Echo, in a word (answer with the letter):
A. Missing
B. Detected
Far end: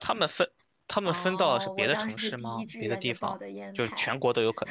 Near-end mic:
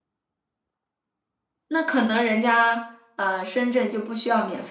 A